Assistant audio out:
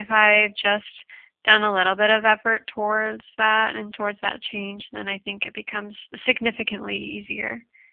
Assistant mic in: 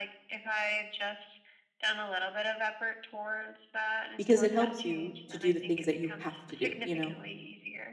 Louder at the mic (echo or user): user